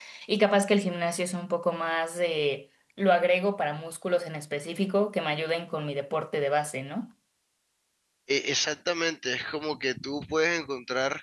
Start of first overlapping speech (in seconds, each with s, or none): none